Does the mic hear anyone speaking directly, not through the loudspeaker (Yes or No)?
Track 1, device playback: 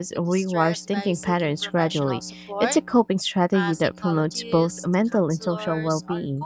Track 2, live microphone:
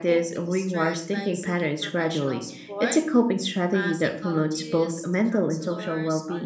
No